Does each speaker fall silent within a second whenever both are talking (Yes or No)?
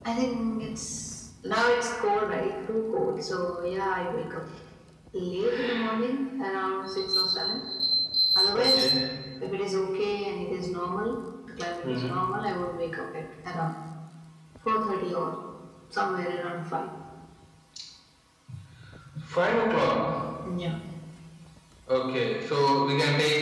Yes